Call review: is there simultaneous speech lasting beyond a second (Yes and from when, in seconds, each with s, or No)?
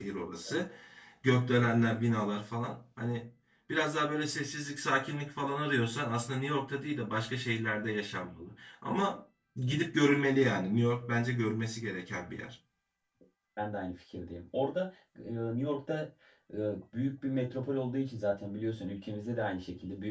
No